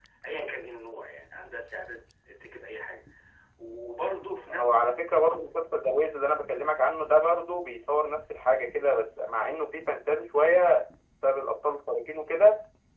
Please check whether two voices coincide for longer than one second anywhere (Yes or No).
No